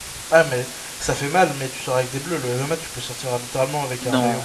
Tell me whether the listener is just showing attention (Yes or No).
No